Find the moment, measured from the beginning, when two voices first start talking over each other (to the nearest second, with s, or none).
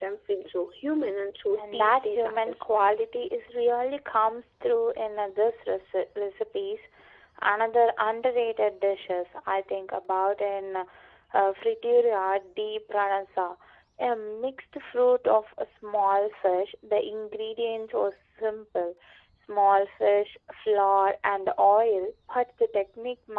2 s